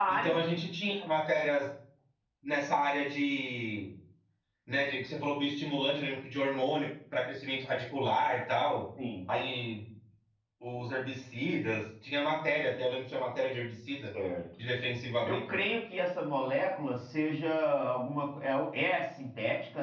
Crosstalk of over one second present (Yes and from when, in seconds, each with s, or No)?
No